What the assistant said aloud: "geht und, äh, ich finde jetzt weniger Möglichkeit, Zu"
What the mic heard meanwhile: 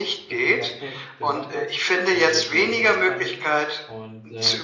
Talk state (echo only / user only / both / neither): both